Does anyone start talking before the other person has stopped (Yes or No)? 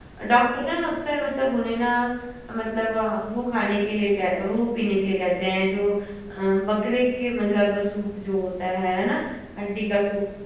No